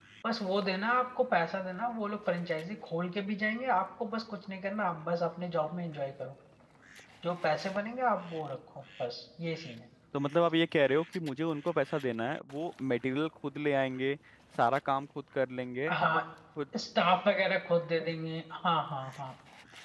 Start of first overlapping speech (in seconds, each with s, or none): none